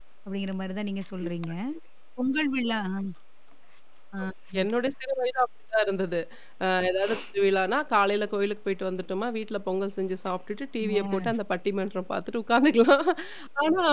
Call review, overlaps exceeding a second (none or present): none